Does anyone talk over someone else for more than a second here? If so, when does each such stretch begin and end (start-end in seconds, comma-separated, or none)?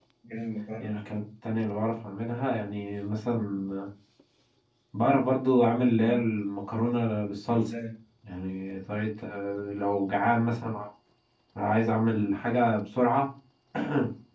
none